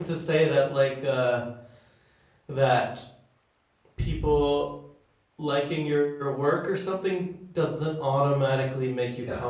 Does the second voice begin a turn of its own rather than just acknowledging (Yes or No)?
No